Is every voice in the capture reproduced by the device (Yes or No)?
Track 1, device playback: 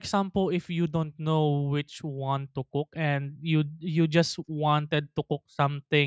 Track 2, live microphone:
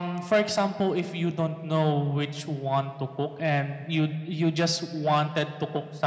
Yes